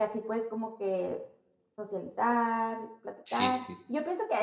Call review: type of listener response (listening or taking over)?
listening